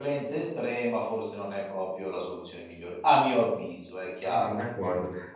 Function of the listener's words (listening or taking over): taking over